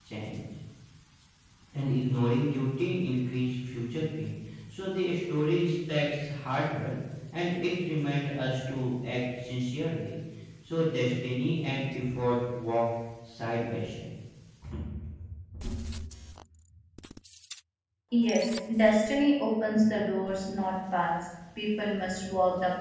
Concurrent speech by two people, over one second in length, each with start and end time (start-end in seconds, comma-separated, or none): none